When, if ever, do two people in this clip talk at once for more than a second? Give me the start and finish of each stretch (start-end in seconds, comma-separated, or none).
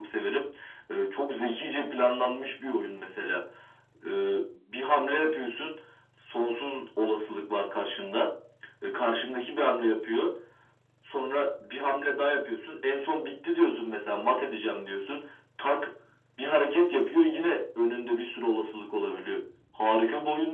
none